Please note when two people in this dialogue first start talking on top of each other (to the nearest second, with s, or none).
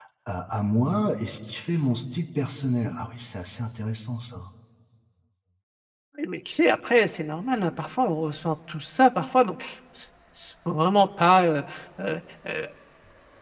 none